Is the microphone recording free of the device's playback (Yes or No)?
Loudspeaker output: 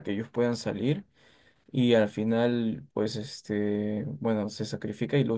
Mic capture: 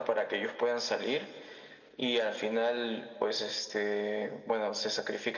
No